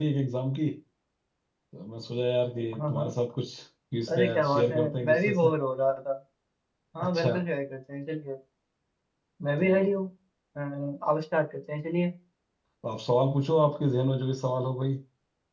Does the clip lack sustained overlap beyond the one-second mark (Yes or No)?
No